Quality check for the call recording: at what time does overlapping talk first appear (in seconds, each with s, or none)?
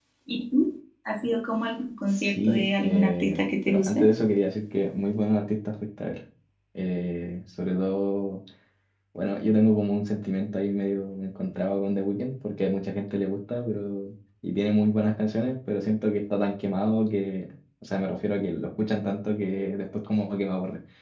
2.1 s